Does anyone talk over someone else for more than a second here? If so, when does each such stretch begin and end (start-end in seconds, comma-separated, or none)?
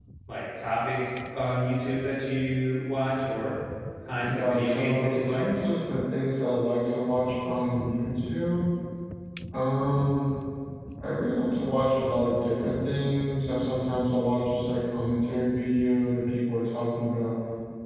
4.2-5.4